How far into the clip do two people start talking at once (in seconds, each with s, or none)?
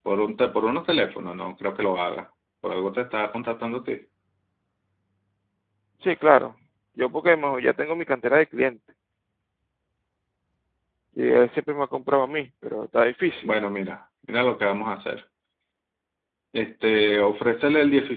none